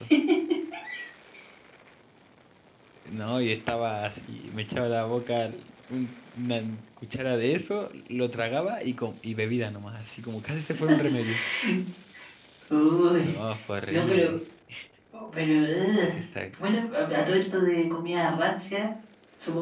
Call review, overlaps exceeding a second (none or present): none